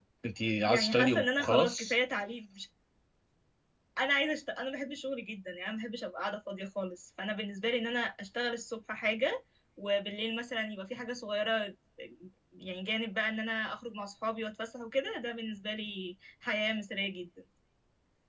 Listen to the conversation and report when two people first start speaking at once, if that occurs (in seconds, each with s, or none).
0.7 s